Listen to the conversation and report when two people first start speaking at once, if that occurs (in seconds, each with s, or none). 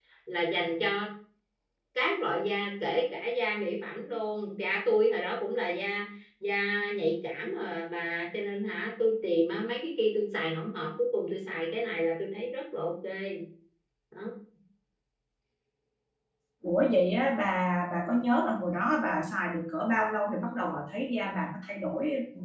none